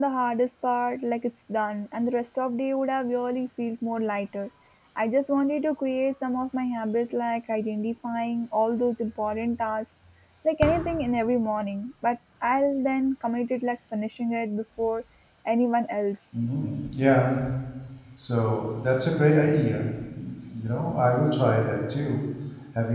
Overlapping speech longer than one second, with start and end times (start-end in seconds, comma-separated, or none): none